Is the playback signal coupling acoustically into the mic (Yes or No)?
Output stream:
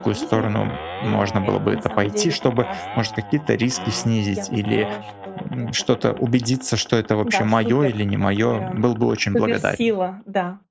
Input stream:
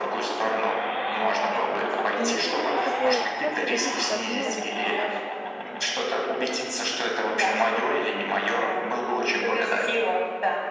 Yes